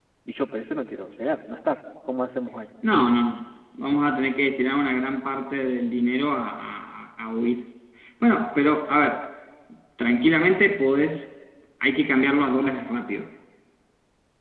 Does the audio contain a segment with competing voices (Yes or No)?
No